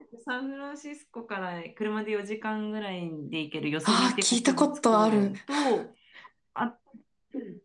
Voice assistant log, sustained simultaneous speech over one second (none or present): present